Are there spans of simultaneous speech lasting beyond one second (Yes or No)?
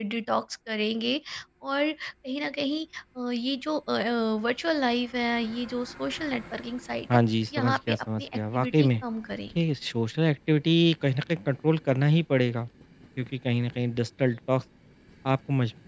Yes